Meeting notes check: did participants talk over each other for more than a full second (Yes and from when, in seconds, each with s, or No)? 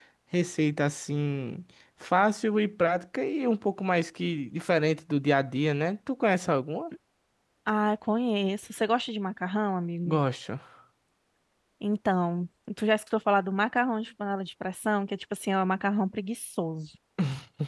No